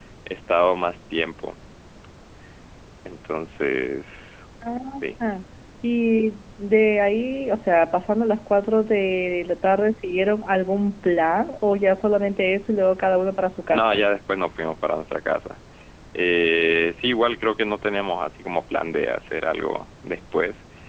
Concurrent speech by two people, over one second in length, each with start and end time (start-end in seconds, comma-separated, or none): none